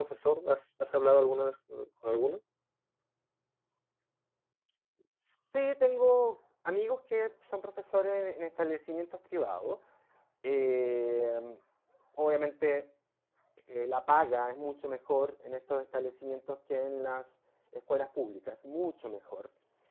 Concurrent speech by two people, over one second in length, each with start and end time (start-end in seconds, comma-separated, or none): none